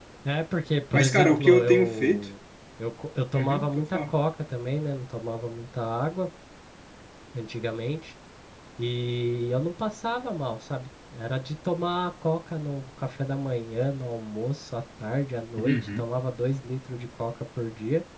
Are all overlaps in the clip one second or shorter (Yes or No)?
No